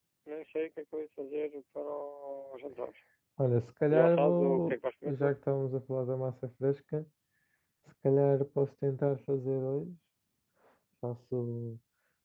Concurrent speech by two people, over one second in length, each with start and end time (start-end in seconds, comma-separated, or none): 3.9-5.3